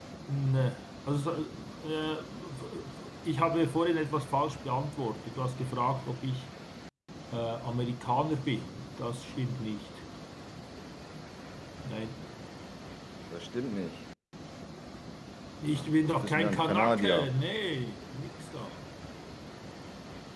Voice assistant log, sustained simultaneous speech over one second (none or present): present